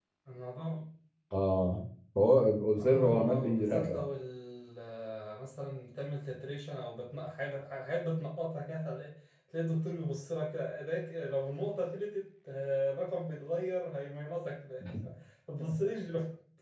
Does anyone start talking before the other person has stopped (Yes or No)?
Yes